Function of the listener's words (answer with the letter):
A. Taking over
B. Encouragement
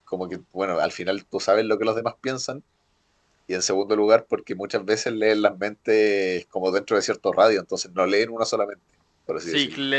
A